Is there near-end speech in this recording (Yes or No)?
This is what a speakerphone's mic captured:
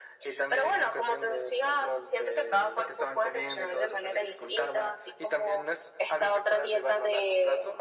No